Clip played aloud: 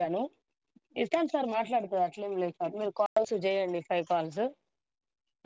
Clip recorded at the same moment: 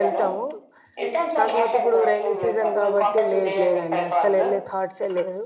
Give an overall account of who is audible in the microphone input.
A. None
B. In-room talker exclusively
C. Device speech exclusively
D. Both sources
D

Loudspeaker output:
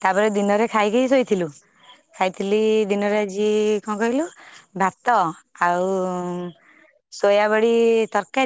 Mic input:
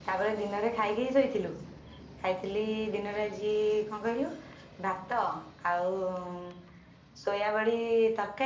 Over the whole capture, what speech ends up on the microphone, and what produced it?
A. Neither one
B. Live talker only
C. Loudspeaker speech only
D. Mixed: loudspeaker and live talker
C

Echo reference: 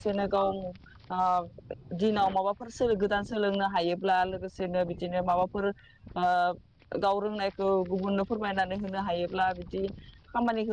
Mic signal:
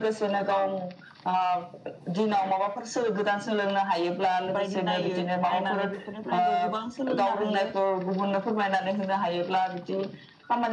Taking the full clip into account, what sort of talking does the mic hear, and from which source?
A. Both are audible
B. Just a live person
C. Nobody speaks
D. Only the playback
A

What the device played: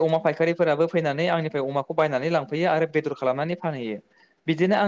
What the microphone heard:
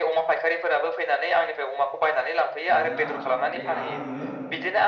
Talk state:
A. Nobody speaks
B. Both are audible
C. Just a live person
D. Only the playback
B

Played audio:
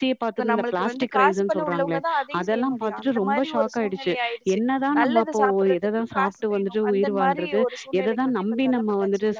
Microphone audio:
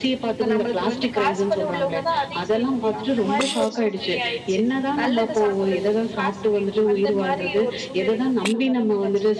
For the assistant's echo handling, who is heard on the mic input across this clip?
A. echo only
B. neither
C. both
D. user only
A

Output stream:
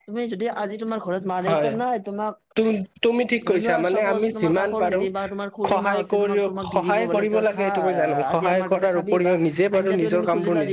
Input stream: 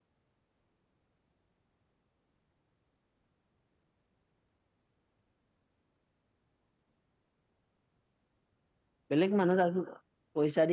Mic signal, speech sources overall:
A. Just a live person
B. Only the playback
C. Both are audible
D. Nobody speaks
A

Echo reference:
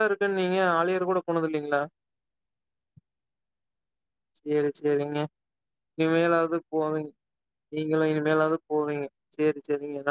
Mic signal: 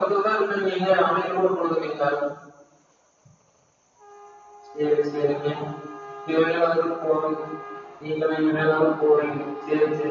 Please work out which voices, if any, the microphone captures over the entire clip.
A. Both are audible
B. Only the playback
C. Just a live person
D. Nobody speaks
B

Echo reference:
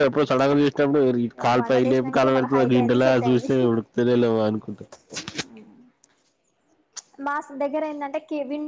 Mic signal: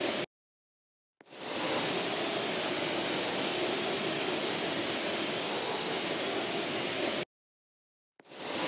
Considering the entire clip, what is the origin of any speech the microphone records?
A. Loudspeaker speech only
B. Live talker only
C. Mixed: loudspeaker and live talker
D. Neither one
D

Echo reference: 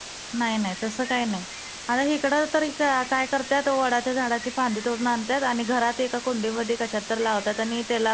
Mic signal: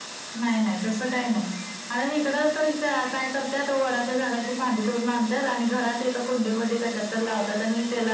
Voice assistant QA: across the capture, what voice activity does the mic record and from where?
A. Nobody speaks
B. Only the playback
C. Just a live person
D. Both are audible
B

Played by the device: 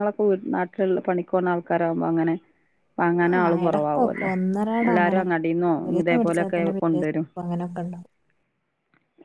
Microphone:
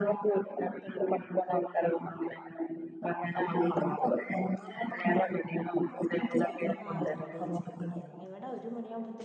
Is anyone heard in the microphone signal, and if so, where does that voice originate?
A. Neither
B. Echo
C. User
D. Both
D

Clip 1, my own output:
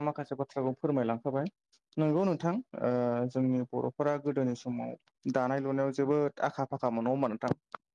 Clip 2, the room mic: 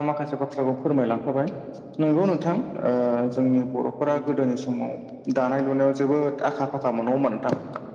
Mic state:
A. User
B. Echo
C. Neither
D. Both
B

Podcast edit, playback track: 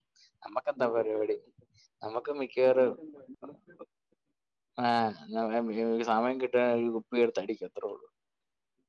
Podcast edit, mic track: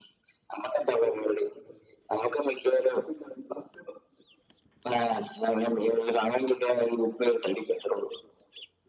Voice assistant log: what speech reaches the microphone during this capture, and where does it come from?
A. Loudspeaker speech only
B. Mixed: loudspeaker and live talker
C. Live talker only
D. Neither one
A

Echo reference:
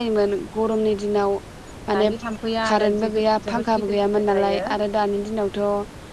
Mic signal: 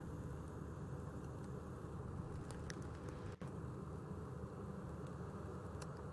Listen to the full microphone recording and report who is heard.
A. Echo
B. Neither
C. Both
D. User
B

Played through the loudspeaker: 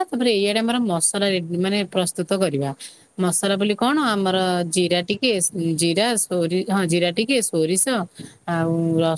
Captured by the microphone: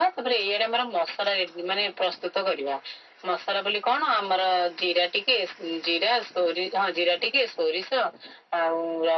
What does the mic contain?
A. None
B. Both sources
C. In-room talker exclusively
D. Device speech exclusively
D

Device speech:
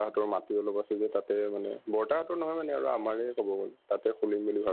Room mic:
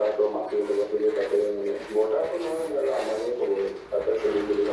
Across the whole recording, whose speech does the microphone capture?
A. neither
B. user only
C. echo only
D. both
C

